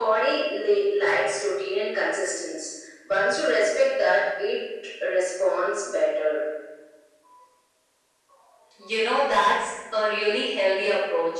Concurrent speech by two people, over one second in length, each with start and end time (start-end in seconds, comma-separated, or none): none